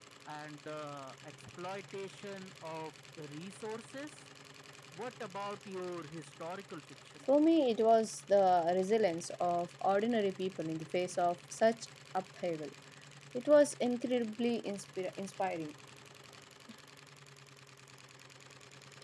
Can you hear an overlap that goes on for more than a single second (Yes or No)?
No